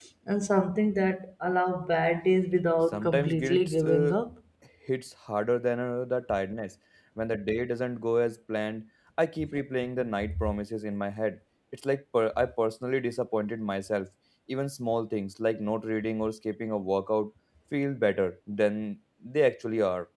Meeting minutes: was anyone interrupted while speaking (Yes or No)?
Yes